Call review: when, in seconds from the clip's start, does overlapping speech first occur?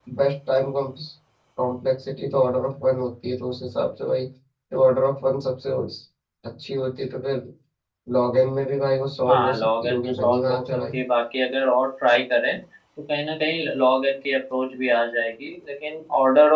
9.3 s

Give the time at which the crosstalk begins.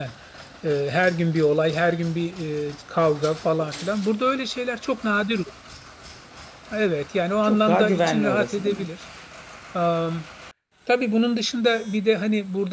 7.4 s

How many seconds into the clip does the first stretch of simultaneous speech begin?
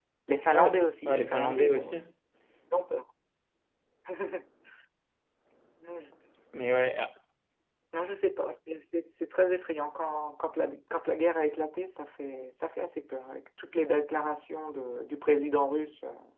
0.5 s

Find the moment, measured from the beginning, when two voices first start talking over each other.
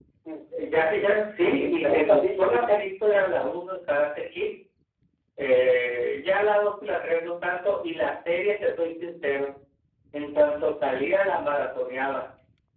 1.6 s

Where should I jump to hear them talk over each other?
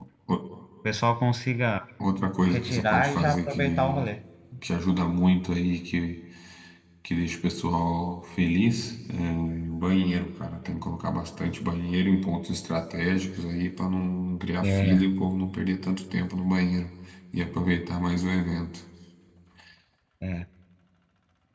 2.5 s

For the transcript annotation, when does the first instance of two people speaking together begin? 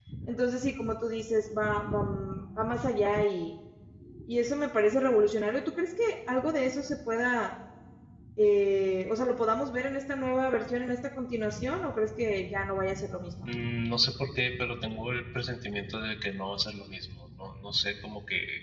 none

